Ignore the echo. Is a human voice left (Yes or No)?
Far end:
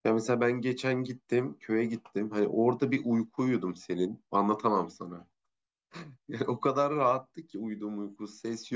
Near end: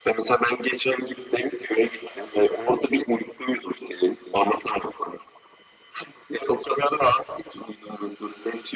No